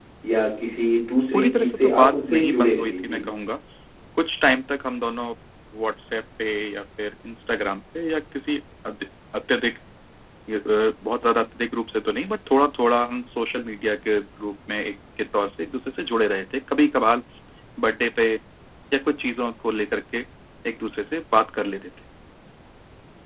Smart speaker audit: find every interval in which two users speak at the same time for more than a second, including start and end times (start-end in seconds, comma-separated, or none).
1.3-3.2